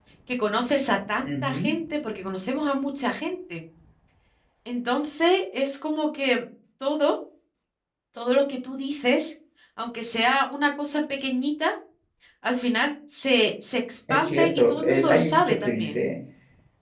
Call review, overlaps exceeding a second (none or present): present